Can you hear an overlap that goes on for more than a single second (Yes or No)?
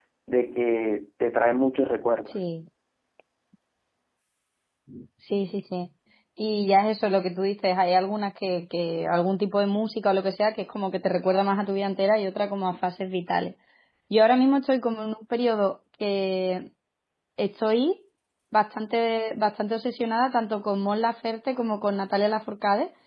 No